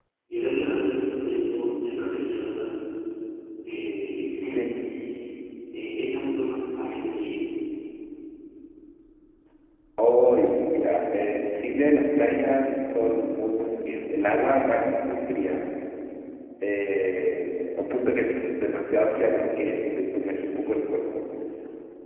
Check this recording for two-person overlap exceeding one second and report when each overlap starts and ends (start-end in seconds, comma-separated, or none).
none